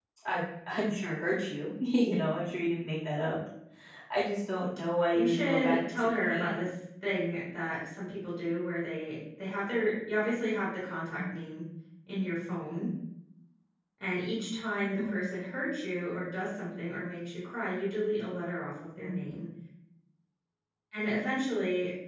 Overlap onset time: 5.1 s

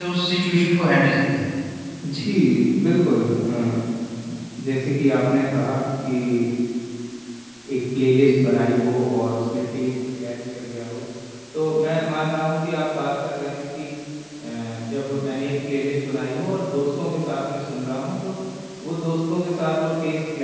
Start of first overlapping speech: none

